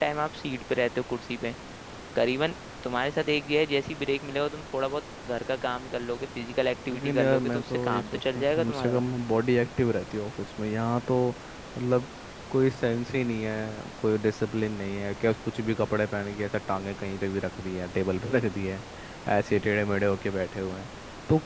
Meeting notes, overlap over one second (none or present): present